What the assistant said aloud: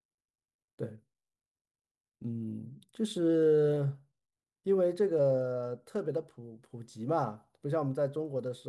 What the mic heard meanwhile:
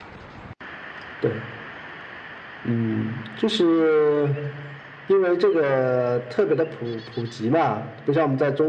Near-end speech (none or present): none